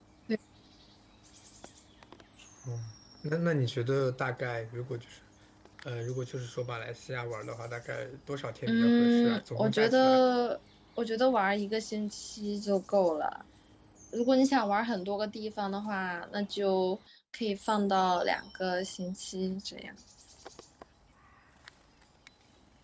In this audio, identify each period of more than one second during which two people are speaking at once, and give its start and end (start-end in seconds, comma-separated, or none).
8.7-10.2